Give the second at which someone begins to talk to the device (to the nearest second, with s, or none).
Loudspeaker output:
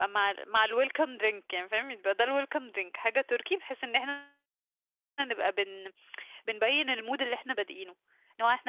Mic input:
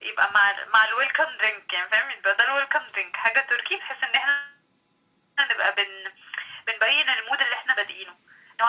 none